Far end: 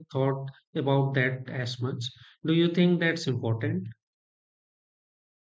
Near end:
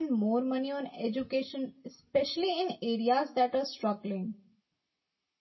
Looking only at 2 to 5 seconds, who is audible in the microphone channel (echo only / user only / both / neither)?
user only